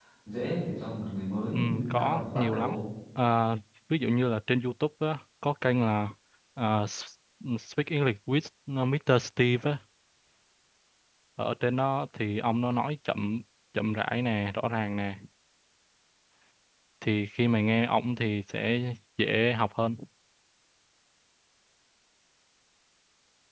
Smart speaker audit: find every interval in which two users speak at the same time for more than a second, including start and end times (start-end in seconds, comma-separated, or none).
1.5-2.8